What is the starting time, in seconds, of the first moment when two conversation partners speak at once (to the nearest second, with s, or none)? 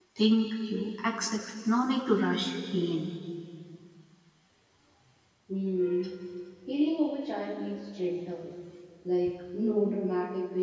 none